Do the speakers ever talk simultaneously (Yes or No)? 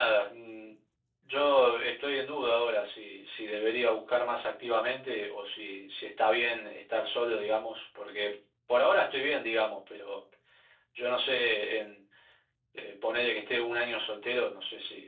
No